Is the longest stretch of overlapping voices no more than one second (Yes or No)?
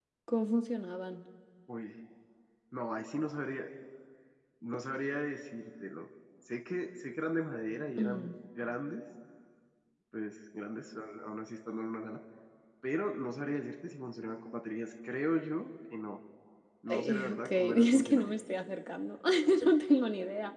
No